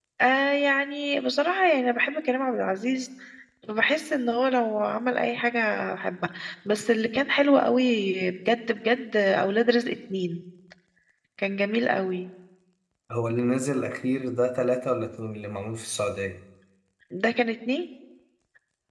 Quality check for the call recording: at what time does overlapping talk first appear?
none

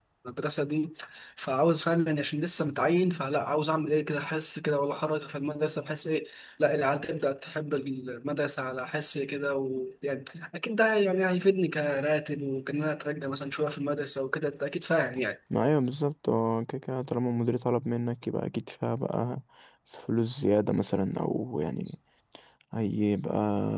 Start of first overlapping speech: none

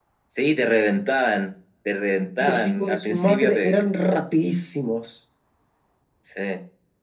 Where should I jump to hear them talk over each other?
2.4 s

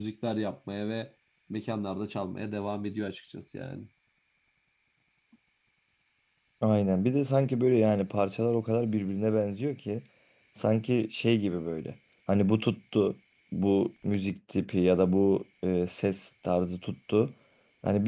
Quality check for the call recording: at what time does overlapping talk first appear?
none

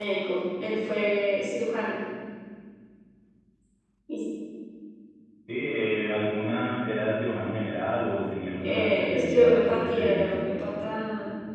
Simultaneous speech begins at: 8.6 s

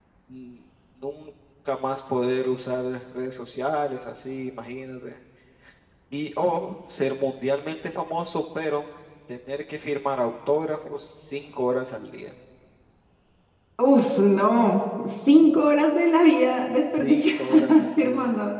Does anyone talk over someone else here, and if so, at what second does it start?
17.0 s

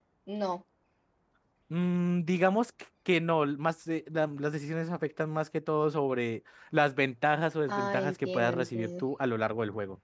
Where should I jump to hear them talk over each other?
7.7 s

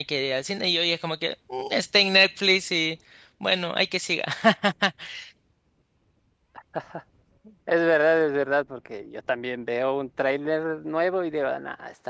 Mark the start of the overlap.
none

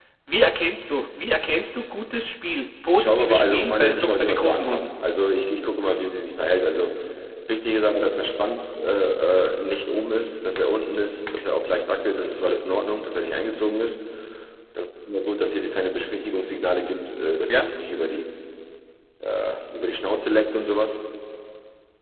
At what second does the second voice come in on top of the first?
2.9 s

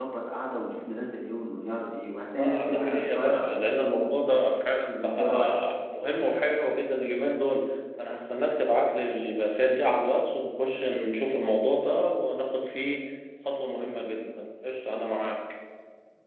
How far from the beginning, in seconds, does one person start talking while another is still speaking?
2.4 s

